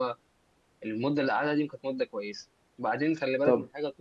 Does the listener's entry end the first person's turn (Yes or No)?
No